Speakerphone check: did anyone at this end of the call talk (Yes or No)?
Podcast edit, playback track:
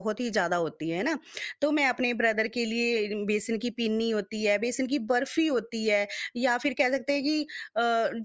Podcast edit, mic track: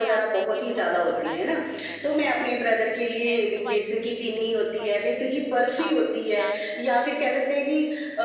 Yes